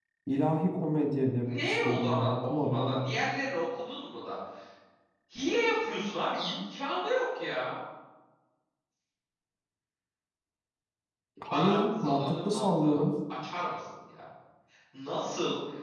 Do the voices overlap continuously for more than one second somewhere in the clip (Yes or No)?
Yes